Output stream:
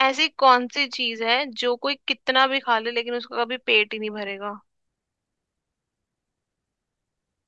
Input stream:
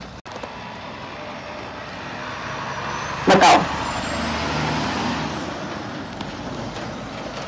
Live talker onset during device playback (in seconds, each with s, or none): 3.3 s